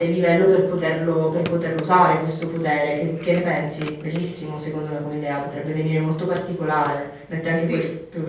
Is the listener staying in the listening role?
Yes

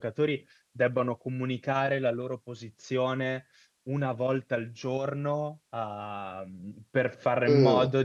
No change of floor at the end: Yes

